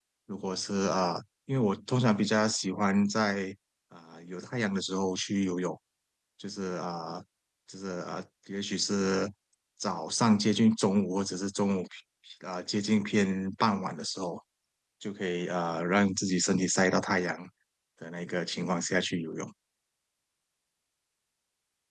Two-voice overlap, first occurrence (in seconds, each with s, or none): none